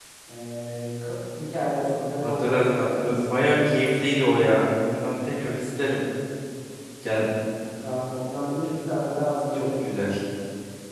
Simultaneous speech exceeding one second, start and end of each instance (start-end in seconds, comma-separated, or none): 2.2-3.5